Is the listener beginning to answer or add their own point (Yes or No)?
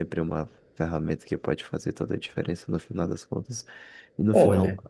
No